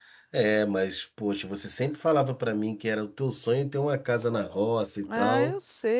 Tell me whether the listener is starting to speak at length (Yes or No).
Yes